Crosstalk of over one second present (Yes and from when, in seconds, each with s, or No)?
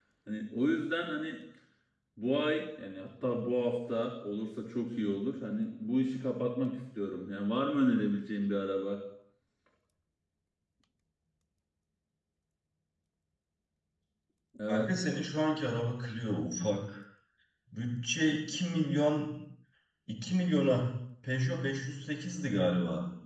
No